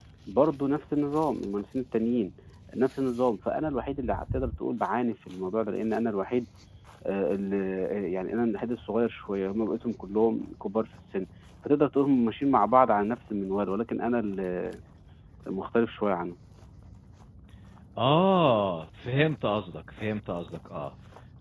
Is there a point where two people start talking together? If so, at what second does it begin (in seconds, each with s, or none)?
none